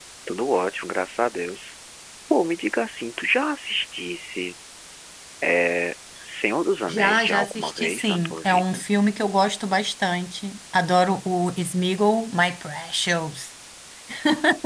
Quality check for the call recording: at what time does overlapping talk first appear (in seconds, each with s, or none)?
6.9 s